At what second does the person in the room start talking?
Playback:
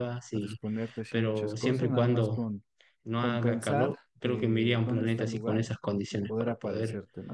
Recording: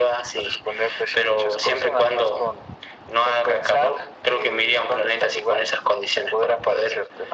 none

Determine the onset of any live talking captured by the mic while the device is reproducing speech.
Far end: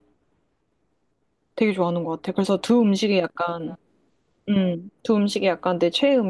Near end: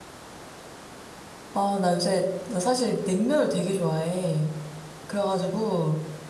1.5 s

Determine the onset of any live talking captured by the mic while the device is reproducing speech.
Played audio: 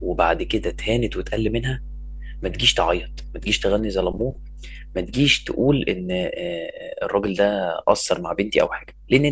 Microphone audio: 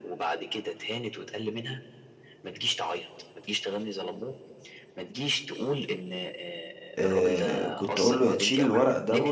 7.0 s

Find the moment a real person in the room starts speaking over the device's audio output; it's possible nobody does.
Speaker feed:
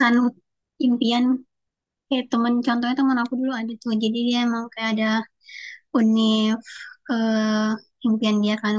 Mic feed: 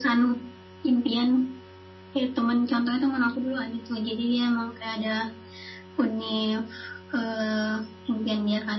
none

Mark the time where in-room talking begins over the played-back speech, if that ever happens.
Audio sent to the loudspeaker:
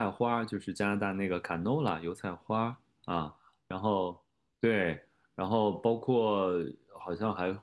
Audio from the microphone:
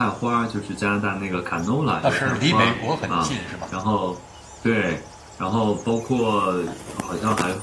2.0 s

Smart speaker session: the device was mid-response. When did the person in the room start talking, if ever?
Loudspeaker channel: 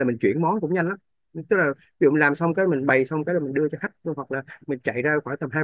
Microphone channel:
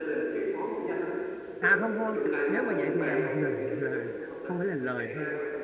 1.6 s

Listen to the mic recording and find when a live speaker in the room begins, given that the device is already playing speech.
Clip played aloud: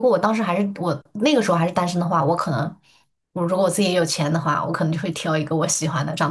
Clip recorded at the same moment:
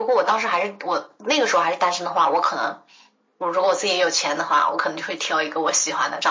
none

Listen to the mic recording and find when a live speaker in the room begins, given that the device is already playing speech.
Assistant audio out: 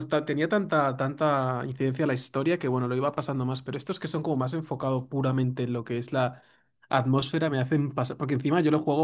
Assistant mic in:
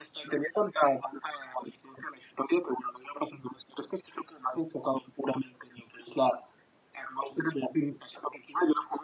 none

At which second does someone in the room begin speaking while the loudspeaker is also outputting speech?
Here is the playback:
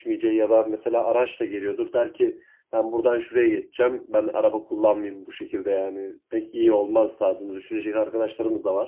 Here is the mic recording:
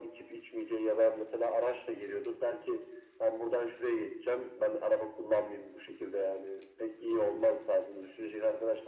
none

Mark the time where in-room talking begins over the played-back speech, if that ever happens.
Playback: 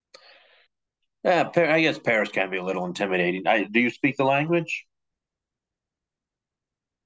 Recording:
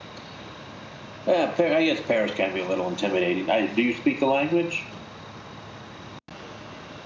none

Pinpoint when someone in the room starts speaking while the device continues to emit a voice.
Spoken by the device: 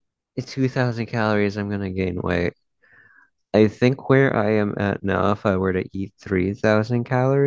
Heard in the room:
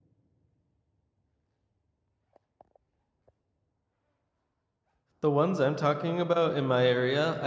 5.2 s

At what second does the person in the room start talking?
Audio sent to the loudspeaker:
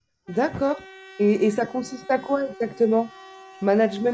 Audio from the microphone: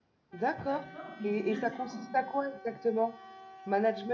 0.6 s

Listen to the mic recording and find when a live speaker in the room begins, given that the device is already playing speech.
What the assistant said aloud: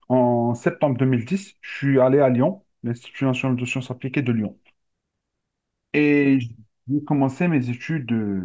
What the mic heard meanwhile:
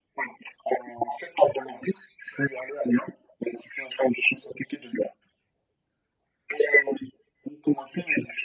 none

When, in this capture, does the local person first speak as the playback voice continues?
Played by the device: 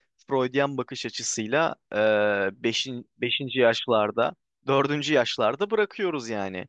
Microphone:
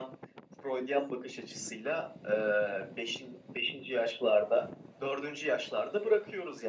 none

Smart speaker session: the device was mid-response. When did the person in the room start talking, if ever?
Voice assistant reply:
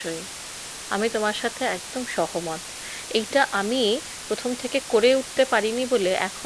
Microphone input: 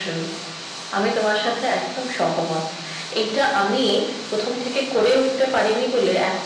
none

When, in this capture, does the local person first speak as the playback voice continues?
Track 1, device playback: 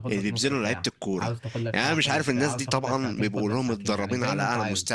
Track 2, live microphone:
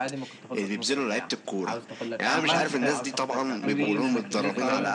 2.2 s

